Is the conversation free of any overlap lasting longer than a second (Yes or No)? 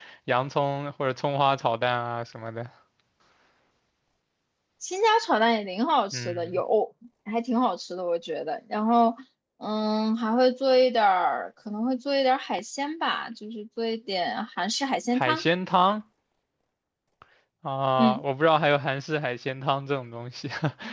Yes